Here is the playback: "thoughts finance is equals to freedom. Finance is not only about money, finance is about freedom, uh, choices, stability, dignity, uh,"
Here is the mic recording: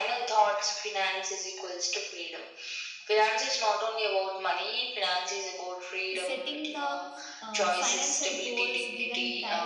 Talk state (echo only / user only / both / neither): both